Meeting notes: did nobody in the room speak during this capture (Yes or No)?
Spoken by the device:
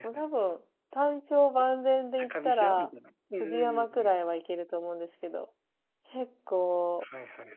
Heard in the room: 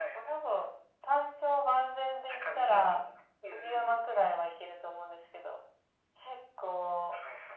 Yes